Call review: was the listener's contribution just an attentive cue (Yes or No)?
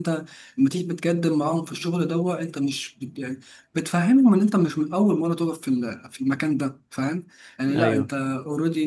Yes